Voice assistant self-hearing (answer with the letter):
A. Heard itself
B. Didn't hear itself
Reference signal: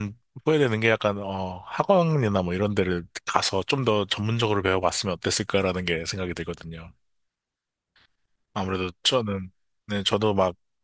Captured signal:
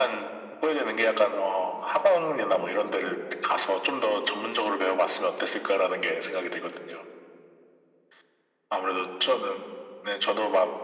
A